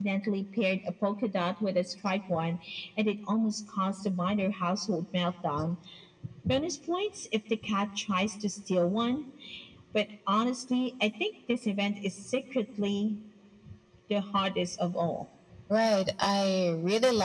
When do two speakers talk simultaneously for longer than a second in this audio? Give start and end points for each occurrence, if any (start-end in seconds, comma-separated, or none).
none